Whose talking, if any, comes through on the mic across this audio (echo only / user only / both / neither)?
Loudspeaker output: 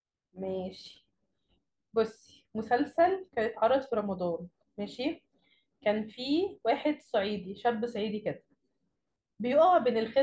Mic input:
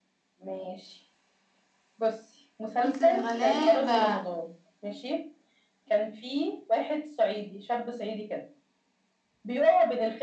both